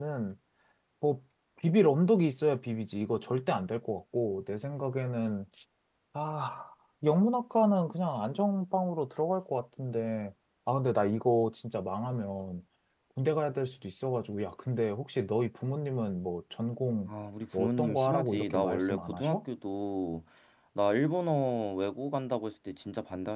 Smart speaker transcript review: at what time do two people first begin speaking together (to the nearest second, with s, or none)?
18 s